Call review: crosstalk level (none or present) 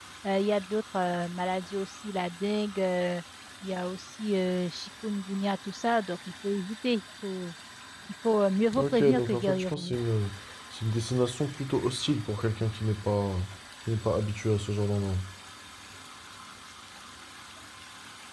present